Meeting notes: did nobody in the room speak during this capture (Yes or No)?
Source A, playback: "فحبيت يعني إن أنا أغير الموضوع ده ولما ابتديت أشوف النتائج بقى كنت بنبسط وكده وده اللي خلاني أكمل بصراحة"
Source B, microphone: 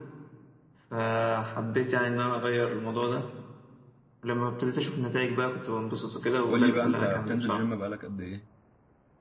No